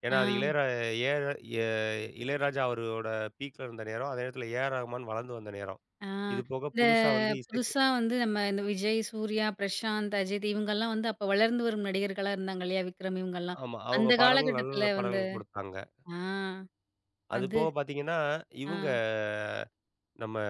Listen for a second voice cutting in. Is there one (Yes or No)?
Yes